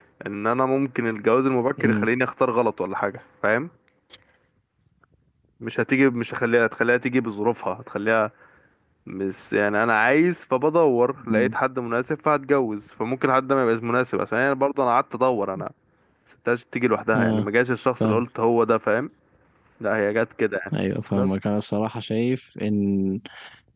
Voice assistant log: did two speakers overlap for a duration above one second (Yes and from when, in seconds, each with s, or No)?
No